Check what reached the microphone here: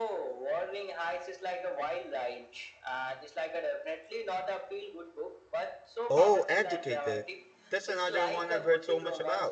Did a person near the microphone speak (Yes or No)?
Yes